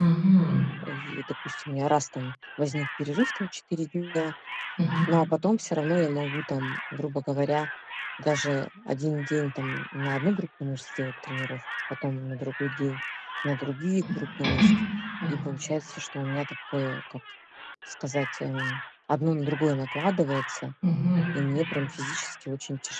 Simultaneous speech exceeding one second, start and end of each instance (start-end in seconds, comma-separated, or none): none